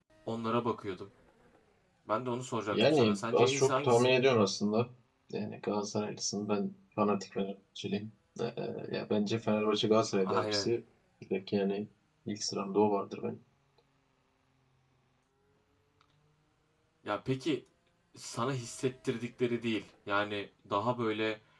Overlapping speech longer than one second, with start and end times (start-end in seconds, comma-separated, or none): 2.7-4.2